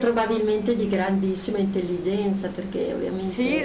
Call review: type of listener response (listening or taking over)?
taking over